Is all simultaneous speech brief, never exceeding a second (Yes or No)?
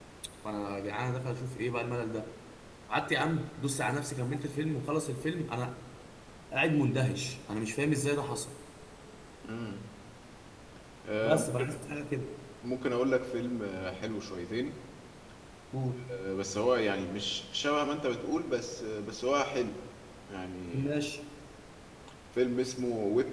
Yes